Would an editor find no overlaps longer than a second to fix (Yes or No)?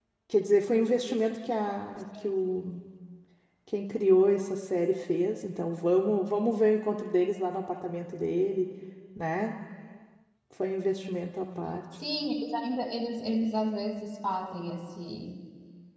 Yes